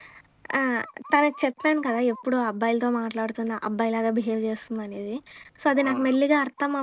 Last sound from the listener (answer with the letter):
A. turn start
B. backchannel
B